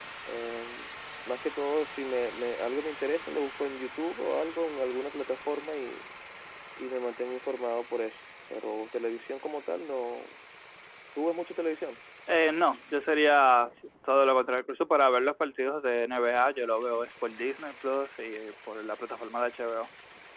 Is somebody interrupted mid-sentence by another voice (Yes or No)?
No